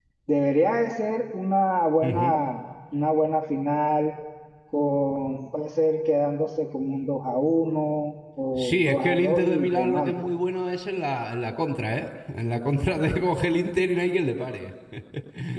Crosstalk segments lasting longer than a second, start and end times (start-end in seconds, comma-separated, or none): 8.6-10.1